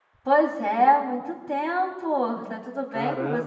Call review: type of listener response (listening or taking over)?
taking over